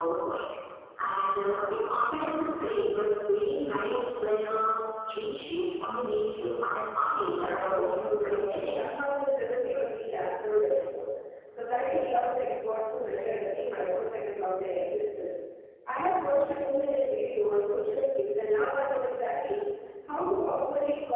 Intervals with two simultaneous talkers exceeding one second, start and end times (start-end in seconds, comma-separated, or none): 7.3-9.1